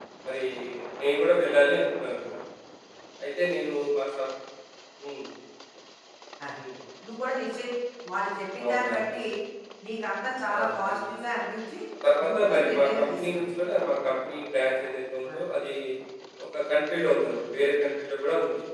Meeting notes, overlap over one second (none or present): present